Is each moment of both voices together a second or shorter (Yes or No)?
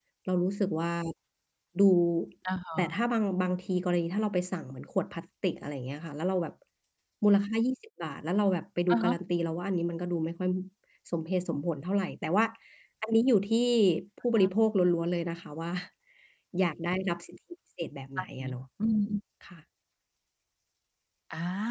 Yes